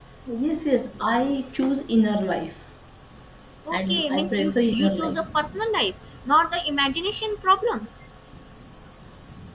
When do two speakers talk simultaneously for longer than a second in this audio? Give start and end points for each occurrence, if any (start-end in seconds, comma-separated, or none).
3.7-5.2